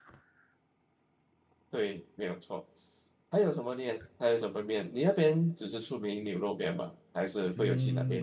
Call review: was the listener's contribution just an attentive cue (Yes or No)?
No